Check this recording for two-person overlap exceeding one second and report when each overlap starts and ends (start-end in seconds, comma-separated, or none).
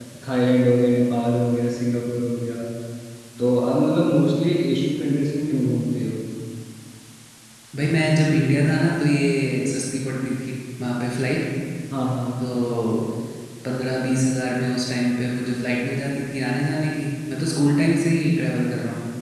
none